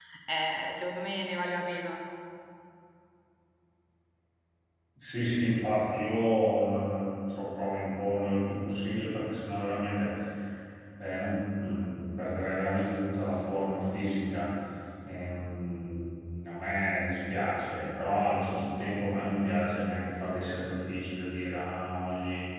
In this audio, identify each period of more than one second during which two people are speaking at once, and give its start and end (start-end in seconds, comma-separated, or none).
none